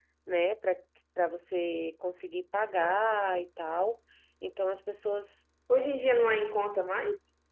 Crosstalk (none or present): none